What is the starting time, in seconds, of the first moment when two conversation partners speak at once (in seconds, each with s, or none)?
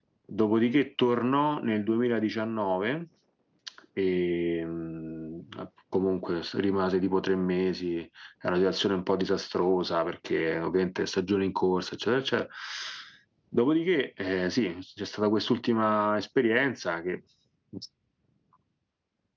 none